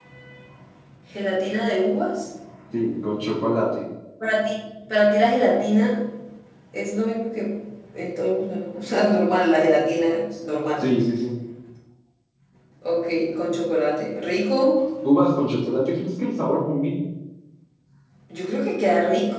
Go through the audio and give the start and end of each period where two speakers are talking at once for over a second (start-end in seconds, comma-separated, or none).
none